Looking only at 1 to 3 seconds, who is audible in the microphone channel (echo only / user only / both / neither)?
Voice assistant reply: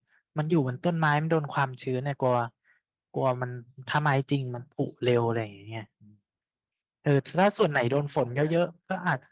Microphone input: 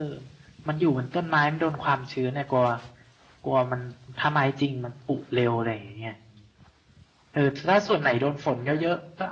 echo only